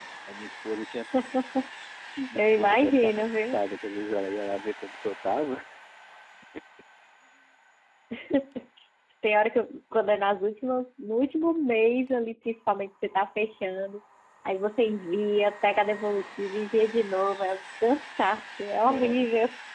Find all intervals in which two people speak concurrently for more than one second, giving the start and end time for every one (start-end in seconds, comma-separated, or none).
2.4-3.6